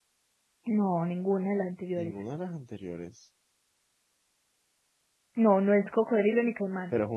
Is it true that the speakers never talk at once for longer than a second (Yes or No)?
Yes